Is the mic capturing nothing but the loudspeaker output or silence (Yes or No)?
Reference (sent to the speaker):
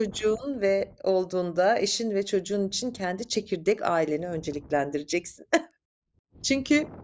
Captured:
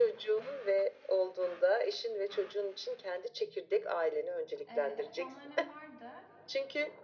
No